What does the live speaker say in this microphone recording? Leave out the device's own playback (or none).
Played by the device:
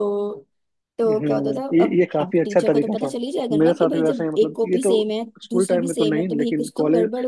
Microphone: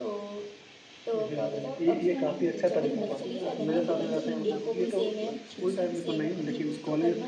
उस टाइम पे बड़ी मौज थी यार ना टेंशन ना कुछ कुछ नहीं